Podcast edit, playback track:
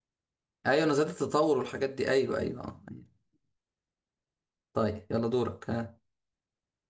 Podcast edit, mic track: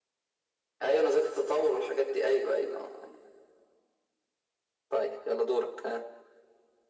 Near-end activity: none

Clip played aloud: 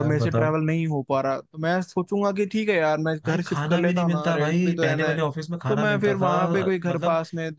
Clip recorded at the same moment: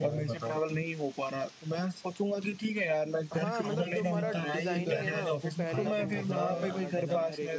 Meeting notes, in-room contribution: present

